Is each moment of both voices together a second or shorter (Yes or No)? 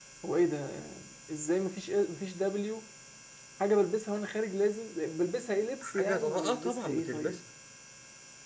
No